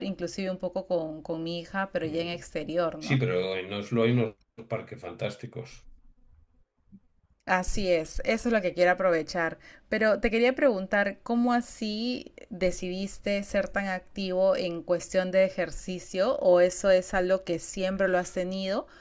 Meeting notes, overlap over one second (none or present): none